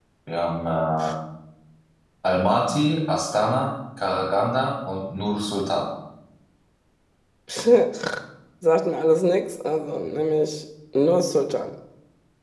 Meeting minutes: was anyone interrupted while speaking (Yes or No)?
No